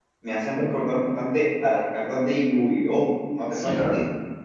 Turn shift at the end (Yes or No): Yes